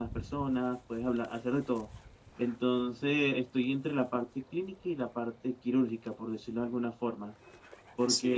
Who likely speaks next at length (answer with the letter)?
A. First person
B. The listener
A